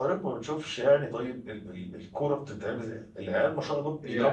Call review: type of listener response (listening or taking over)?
listening